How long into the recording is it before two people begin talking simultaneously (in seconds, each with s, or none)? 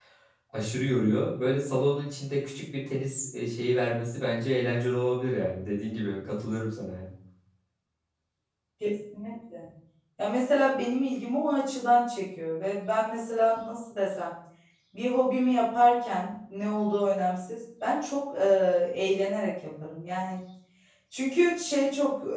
none